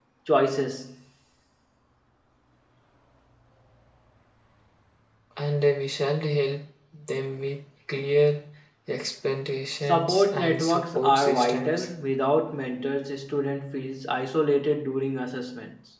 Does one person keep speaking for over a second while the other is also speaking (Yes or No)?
Yes